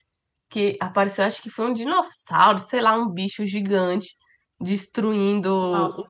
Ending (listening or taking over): listening